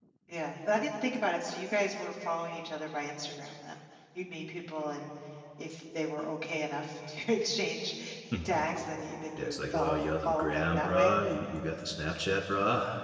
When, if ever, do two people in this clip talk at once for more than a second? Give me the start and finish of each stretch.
9.4-11.1

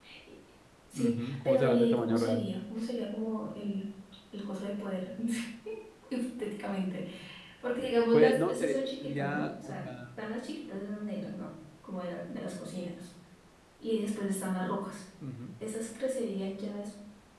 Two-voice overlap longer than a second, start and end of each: 0.9-2.4, 8.1-9.9

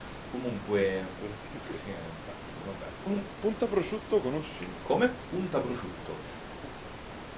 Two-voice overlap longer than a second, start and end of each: none

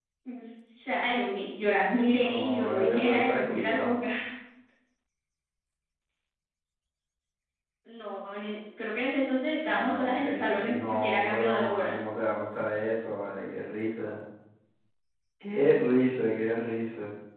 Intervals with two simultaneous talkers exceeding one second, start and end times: 2.0-3.9, 9.6-12.0

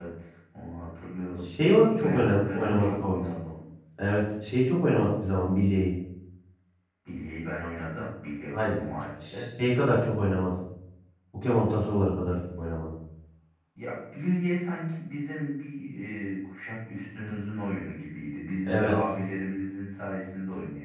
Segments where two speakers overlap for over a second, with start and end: 2.0-3.2

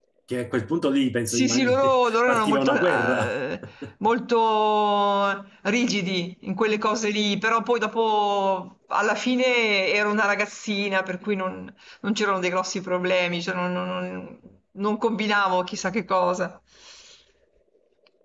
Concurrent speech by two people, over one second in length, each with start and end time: 1.3-3.3

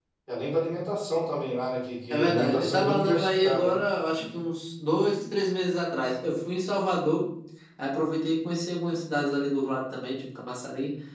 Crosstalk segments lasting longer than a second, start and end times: 2.1-3.8

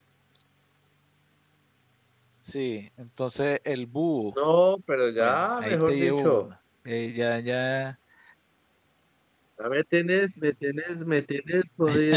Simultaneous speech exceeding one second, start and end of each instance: 5.2-6.5

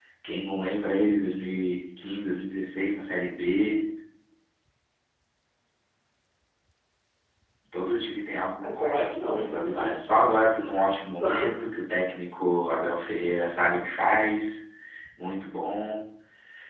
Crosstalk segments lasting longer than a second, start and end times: 8.6-9.9

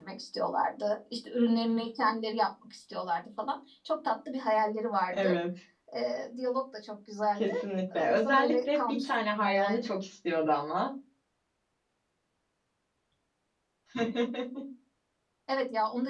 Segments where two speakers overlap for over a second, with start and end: 8.0-9.8

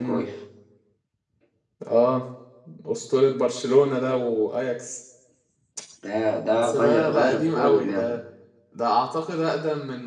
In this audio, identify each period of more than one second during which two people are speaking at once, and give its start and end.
6.5-8.2

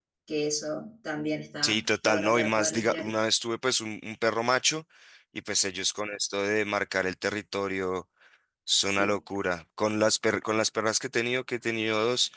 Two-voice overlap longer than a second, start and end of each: 1.6-3.1

